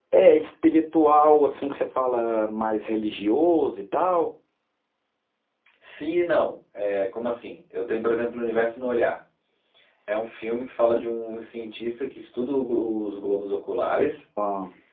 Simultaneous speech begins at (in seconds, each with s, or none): none